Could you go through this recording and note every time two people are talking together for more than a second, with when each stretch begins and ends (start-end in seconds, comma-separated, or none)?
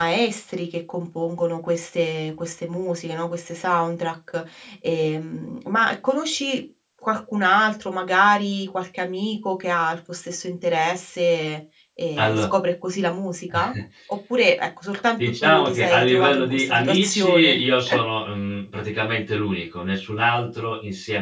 15.4-17.6